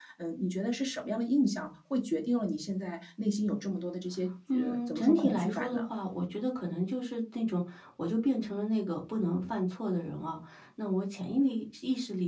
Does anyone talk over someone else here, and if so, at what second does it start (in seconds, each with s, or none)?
4.5 s